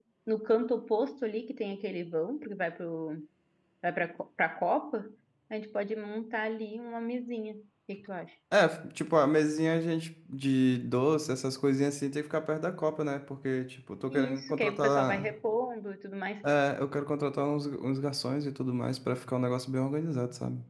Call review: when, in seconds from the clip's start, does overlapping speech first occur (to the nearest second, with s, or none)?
14 s